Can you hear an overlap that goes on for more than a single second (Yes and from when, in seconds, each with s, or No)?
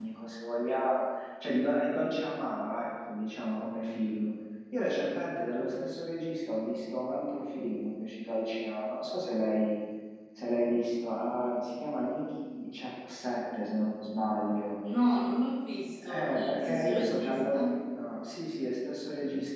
Yes, from 16.0 s